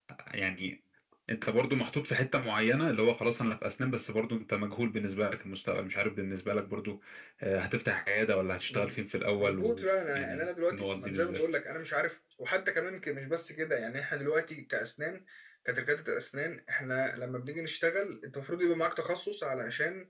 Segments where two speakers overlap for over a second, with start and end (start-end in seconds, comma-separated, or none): 9.4-11.4